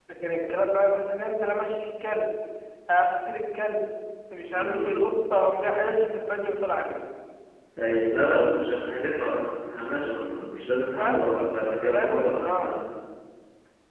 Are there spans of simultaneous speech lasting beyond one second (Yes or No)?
Yes